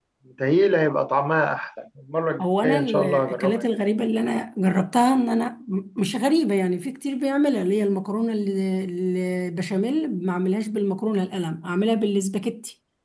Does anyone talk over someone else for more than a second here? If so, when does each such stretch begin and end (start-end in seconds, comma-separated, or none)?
2.4-3.6